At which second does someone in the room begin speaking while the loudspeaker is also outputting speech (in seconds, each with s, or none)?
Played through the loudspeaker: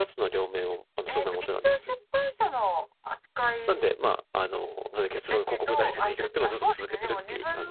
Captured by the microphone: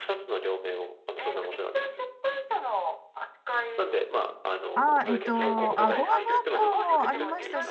4.7 s